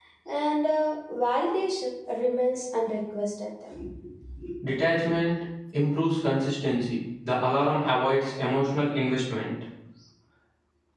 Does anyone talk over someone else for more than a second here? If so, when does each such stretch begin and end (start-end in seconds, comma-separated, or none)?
none